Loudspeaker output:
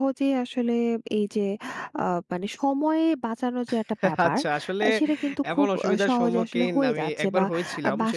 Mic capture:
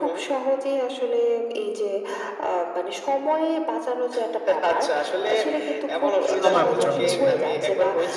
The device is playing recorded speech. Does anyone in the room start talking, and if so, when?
6.3 s

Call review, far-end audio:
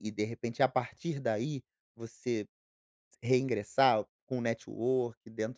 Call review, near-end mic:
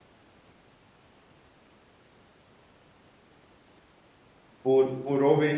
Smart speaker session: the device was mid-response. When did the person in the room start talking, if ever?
4.6 s

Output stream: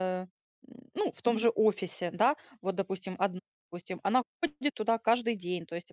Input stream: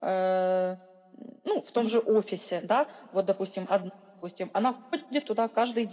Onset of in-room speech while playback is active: none

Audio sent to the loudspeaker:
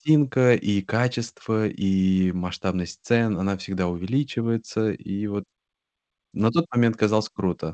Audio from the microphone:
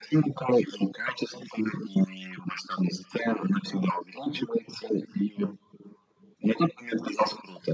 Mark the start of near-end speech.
none

